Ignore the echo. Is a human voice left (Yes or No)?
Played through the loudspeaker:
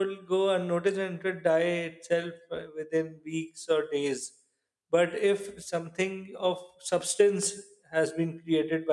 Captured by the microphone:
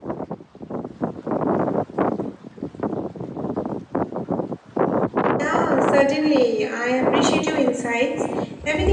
Yes